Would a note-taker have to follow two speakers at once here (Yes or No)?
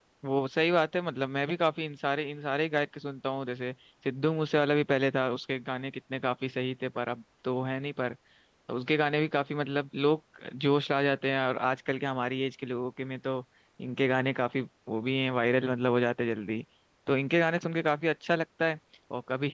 No